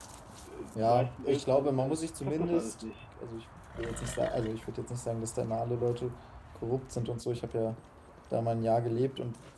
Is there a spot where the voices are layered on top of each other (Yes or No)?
Yes